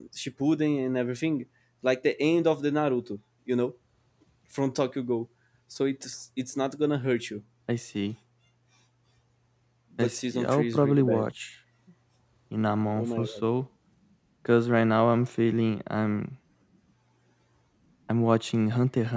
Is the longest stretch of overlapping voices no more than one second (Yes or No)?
No